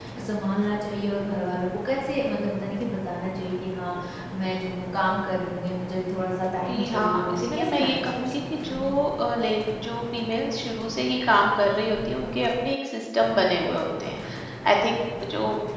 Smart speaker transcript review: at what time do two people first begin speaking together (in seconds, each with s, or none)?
6.7 s